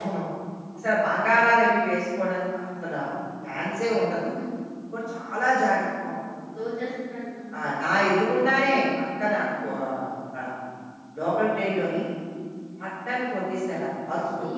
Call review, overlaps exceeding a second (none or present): none